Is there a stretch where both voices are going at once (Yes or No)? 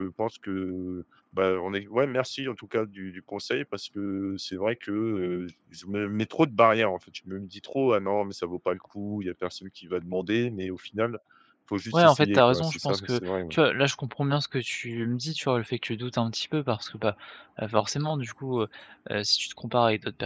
Yes